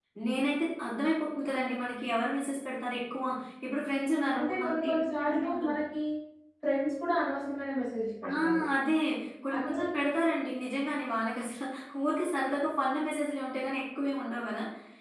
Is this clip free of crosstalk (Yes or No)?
No